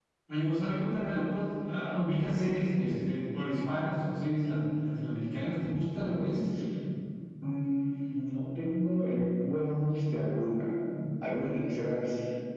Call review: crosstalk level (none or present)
none